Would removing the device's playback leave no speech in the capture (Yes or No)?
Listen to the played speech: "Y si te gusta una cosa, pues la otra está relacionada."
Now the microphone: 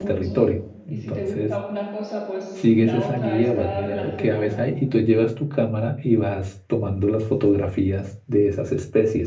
No